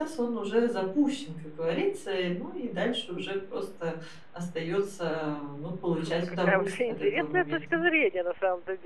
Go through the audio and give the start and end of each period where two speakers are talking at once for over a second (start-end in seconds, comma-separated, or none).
5.9-7.6